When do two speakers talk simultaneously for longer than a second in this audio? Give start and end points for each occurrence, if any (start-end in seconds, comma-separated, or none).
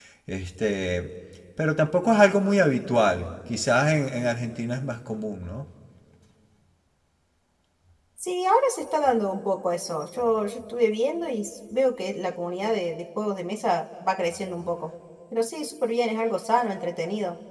none